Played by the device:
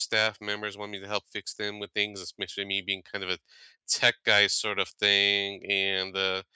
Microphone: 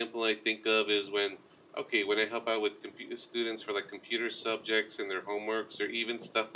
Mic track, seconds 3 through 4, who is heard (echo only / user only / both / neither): user only